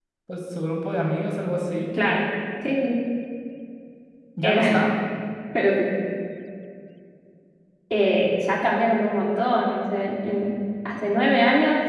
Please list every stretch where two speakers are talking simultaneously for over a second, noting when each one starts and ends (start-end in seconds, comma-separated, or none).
none